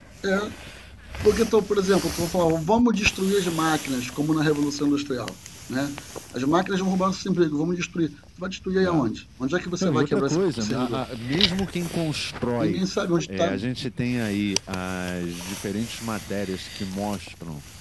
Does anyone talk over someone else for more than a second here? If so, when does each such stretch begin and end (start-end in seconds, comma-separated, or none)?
9.8-11.0